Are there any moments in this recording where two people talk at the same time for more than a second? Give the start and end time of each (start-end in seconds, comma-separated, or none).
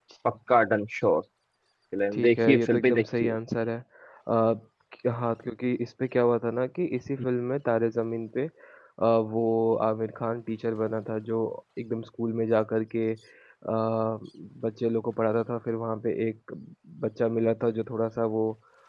2.1-3.4